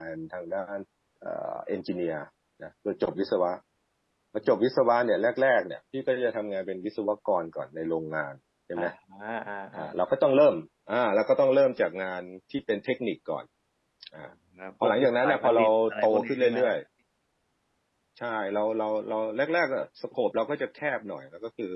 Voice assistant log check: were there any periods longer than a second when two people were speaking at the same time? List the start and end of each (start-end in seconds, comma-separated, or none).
14.8-16.6